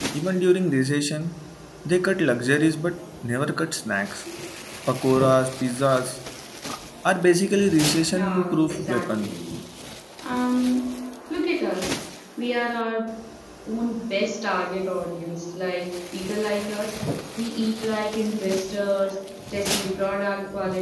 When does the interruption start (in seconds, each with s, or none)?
8.1 s